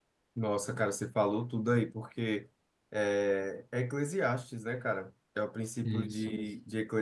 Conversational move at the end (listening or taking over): listening